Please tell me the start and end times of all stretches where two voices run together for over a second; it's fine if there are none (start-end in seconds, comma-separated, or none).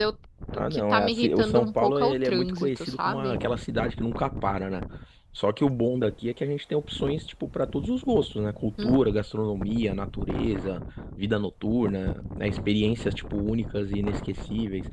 0.6-3.4